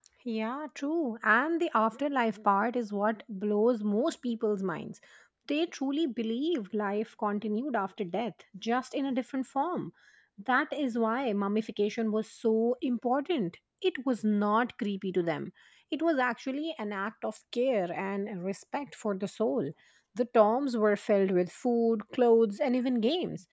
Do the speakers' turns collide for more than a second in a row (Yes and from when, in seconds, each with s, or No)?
No